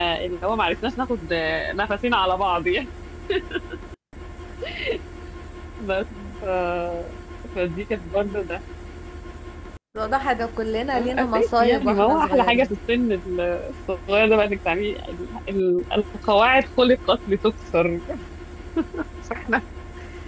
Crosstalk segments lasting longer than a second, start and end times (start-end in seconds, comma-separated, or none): 10.9-12.8